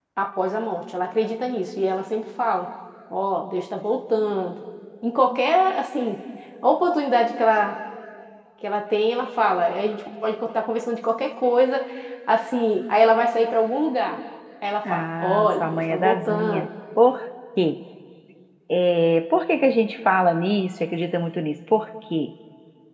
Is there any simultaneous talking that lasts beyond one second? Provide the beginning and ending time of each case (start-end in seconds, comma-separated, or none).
14.8-16.7